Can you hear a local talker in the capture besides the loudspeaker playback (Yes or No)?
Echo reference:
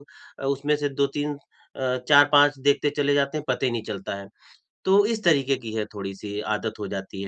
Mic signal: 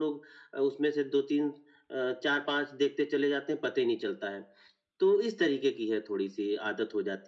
No